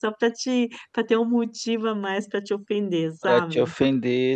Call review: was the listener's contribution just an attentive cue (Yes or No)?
No